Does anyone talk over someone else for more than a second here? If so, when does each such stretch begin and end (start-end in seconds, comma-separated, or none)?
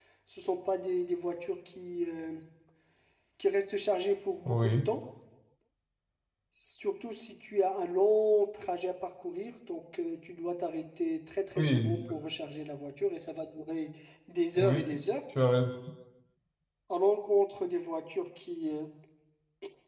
none